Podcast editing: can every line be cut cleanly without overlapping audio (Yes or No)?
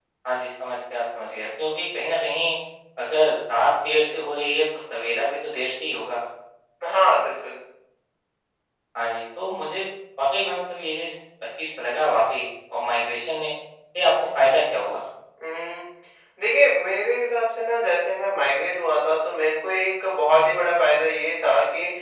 Yes